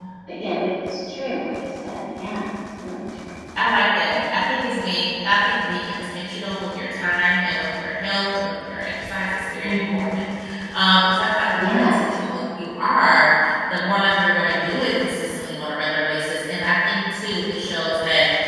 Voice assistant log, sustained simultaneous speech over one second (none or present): none